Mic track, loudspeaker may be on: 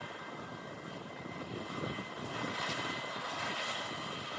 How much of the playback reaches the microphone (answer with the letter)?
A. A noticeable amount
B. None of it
B